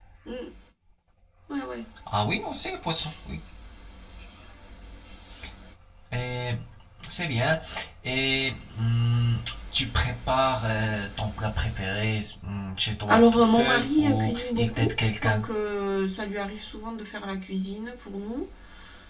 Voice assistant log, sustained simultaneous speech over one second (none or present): present